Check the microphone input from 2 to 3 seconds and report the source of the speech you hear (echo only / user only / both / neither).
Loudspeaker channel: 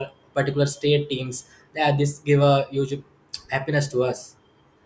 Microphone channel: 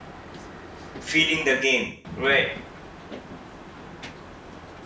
user only